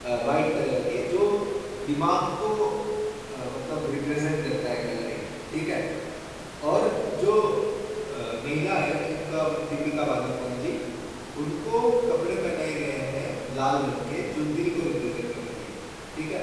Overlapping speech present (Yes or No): No